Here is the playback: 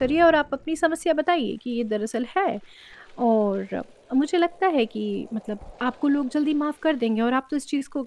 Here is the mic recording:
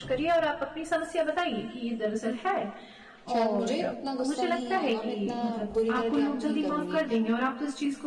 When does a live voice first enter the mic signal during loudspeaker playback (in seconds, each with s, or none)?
3.3 s